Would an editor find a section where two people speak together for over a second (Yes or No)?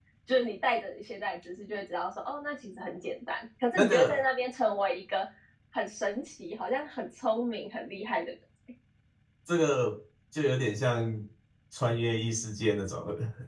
No